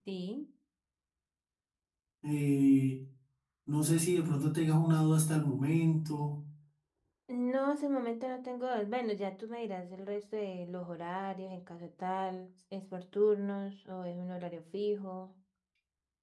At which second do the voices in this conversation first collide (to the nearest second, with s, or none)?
none